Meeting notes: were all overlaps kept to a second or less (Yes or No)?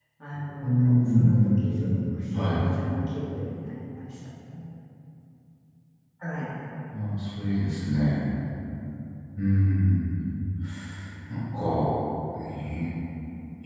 No